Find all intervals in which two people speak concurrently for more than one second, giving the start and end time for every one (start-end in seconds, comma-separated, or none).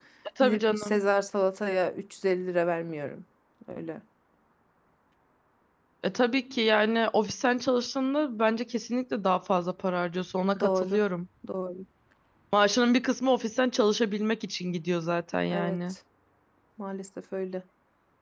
none